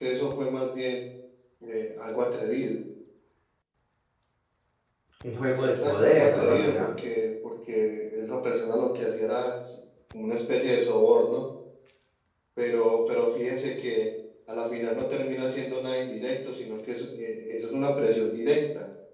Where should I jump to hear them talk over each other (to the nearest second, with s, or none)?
6 s